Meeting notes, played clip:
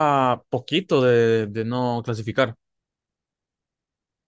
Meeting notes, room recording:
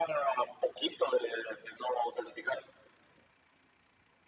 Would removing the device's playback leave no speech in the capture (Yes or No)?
Yes